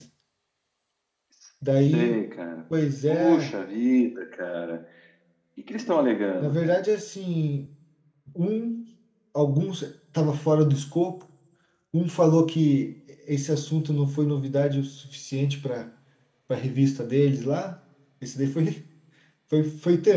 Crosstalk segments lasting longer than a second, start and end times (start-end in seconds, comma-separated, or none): none